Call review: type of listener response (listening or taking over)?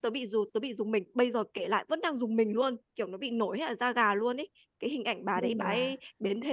listening